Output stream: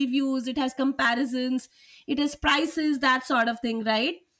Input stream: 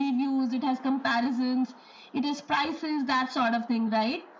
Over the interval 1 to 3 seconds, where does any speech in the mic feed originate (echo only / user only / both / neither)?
echo only